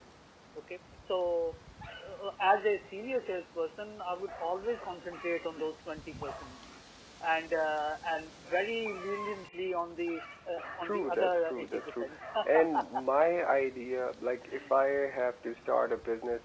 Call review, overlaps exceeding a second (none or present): present